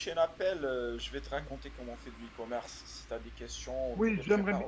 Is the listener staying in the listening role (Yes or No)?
No